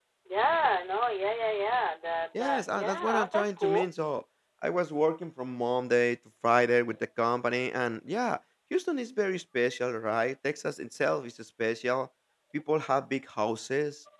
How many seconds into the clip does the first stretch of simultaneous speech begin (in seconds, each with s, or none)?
2.3 s